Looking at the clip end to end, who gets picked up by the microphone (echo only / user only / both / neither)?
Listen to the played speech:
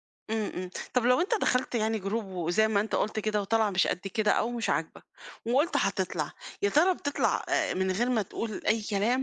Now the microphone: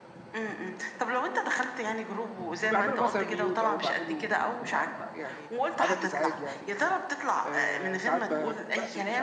both